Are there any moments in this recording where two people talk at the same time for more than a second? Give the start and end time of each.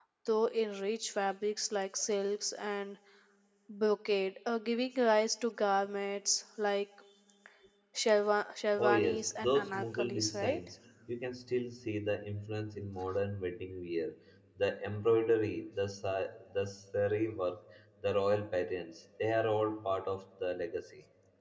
8.8-10.6

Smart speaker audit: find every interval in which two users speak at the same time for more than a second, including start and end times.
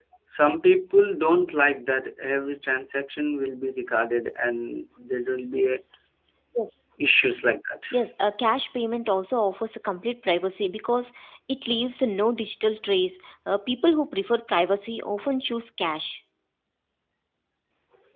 none

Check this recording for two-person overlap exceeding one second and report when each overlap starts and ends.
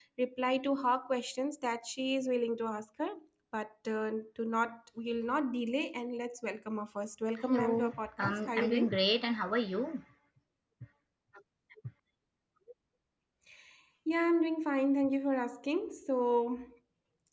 7.4-9.0

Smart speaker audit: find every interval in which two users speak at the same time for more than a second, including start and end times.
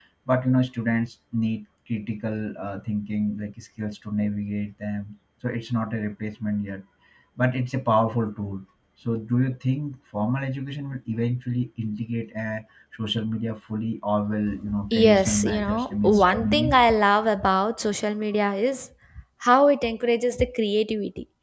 14.9-16.8

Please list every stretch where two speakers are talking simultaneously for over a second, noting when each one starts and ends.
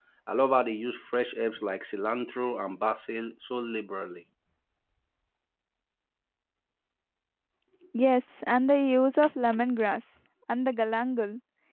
none

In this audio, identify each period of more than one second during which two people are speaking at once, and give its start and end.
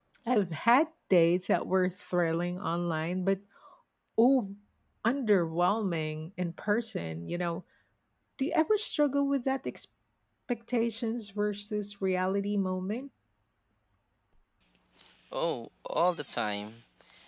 none

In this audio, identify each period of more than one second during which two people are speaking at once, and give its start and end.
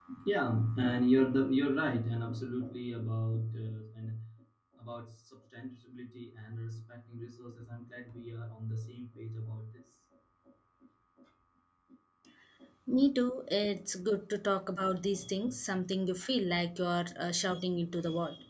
none

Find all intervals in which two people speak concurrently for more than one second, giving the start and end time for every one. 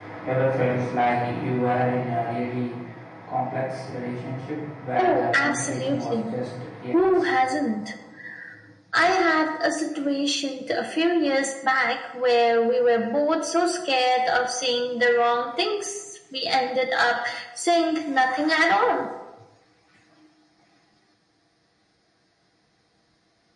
5.0-6.3

